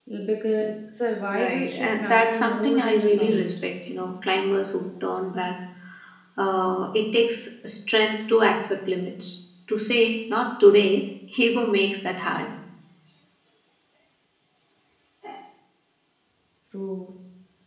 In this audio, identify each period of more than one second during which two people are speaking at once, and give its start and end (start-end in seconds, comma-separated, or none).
1.3-3.6